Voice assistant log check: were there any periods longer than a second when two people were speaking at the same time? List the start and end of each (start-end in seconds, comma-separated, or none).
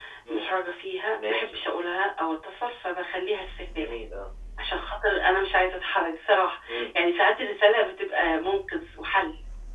none